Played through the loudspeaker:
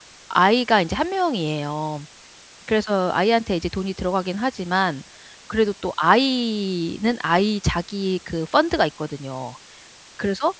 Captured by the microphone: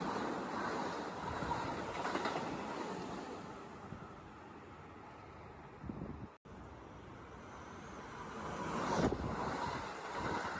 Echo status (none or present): none